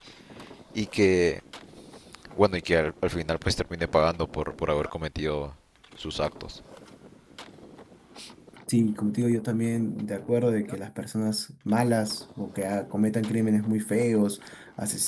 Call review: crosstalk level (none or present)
none